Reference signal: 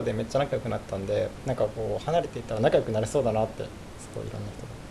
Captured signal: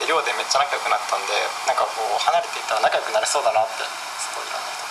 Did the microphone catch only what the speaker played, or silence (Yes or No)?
Yes